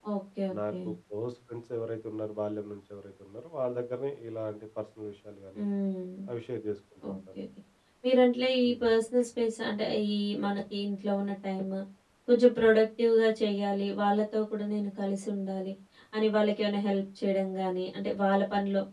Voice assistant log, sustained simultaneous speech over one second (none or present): none